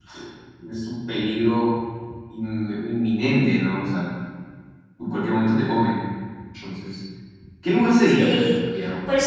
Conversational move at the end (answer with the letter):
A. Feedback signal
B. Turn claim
B